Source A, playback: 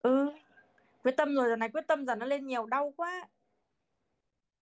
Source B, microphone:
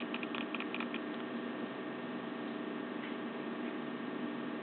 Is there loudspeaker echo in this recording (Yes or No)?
No